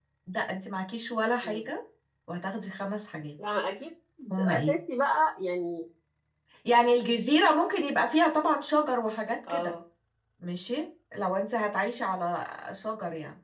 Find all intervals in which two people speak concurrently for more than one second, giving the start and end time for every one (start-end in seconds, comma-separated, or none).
none